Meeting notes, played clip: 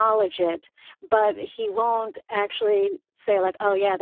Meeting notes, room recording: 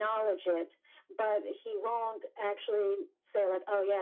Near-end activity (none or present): none